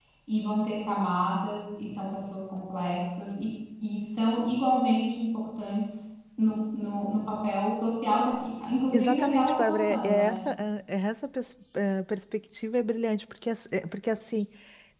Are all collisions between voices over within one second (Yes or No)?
No